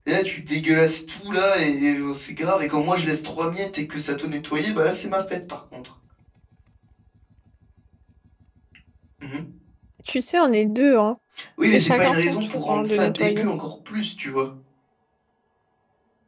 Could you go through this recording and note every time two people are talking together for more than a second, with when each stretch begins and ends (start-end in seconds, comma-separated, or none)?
11.7-13.5